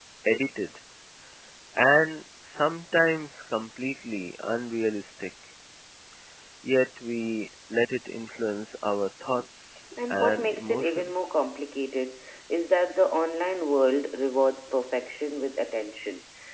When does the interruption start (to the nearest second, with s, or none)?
10 s